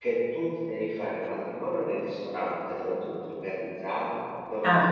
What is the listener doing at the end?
listening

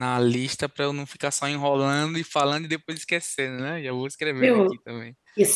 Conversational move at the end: taking over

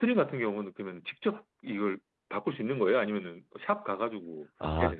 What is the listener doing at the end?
taking over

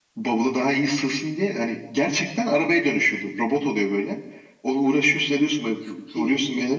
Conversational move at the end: listening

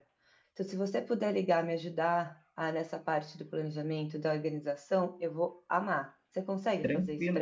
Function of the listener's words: taking over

